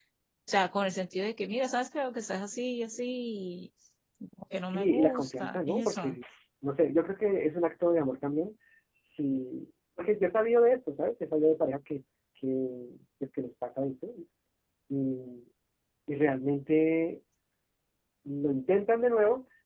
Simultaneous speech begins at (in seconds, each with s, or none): 4.6 s